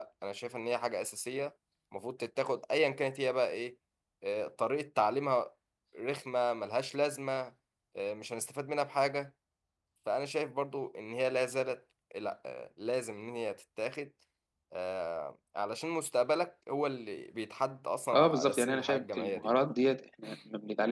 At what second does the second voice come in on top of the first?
18 s

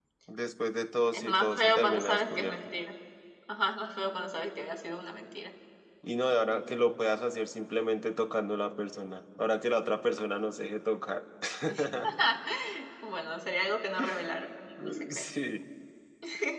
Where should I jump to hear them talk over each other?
1 s

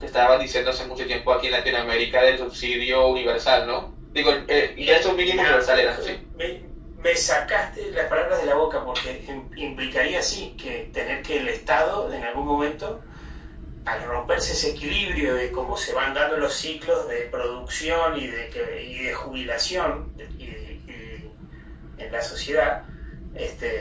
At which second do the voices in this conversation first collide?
5 s

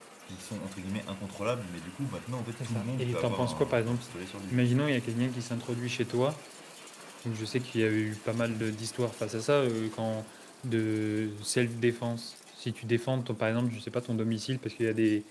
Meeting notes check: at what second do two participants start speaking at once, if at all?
3 s

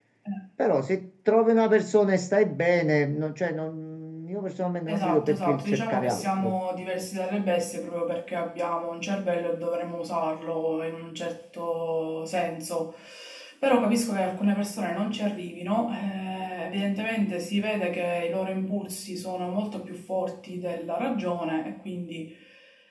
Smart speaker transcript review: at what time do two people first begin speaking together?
5 s

